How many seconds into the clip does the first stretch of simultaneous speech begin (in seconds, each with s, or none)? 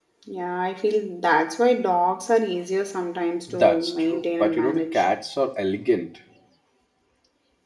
3.5 s